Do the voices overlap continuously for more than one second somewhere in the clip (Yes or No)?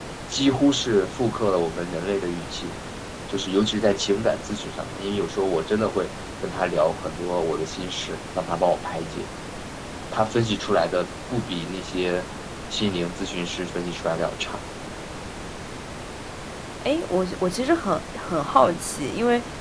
No